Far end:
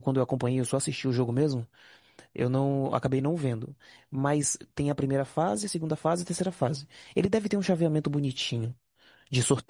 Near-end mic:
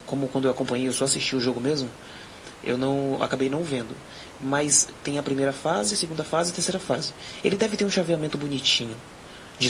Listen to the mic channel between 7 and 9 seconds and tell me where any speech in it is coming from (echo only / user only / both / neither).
echo only